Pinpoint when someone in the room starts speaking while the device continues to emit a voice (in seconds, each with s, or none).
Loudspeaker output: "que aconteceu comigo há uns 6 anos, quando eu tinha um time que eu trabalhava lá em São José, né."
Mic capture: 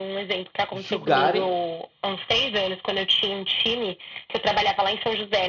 0.7 s